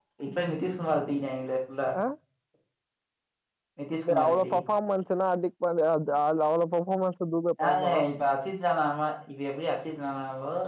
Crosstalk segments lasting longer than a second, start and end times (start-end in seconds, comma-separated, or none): none